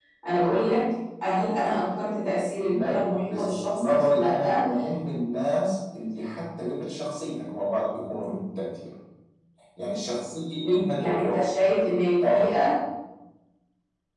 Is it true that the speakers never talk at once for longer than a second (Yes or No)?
No